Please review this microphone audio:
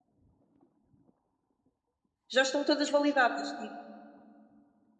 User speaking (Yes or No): Yes